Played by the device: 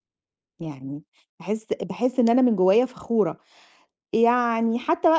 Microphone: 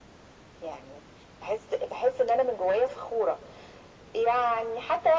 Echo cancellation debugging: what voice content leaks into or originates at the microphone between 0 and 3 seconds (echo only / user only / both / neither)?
echo only